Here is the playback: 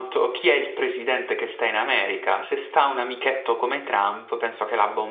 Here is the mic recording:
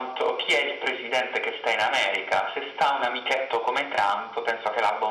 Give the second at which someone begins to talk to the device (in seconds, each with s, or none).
none